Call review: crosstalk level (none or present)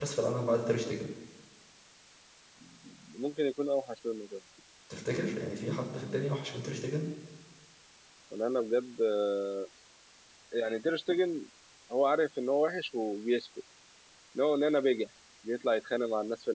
none